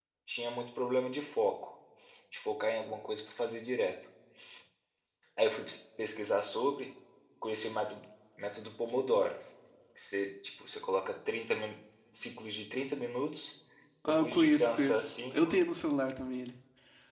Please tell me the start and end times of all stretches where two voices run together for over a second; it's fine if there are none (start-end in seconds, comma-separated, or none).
14.1-15.5